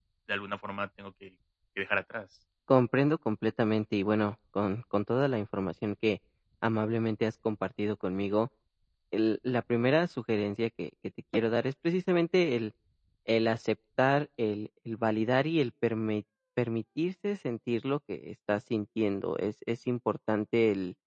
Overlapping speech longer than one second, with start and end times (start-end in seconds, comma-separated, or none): none